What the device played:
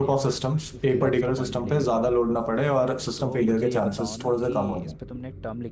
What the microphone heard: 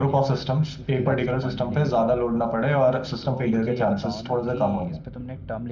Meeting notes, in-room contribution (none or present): none